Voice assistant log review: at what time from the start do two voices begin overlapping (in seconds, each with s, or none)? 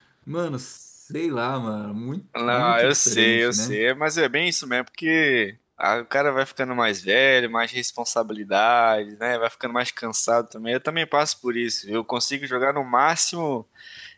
2.4 s